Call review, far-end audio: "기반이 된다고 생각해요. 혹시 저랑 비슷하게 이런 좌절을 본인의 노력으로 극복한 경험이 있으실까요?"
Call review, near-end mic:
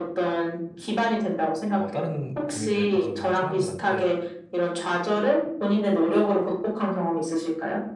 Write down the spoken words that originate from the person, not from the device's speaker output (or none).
어, 다른 고민들 가지고 있는 사람들한테